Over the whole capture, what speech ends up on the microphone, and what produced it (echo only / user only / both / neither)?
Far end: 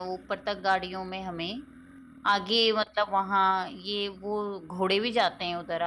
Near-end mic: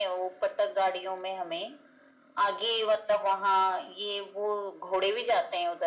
echo only